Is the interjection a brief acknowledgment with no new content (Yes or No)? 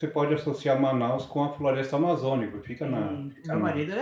No